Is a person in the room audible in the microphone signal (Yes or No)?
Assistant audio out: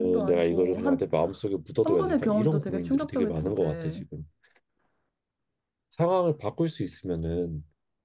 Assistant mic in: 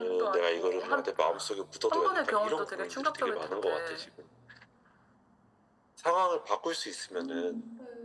Yes